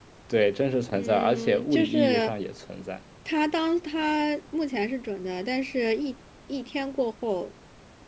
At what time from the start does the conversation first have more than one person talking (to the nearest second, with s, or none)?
1 s